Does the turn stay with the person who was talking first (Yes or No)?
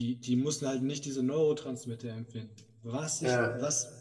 Yes